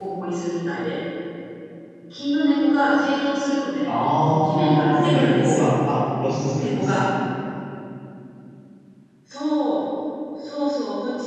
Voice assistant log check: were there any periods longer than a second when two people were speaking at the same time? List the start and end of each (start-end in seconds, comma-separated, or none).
3.9-5.8